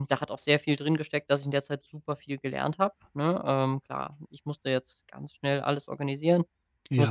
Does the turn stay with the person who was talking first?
Yes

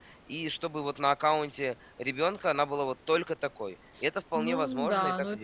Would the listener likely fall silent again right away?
No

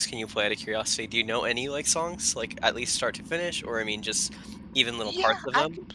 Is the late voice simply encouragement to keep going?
No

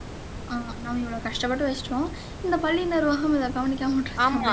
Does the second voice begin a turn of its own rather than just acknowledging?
Yes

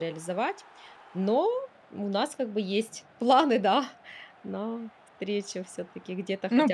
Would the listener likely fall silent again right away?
No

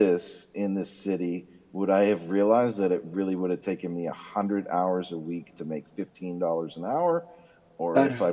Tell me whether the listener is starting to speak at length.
No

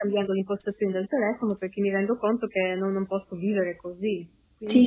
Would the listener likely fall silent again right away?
No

